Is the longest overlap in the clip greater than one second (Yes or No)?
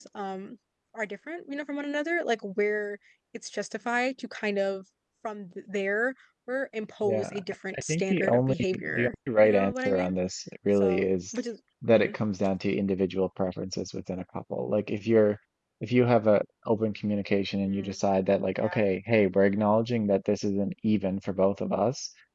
Yes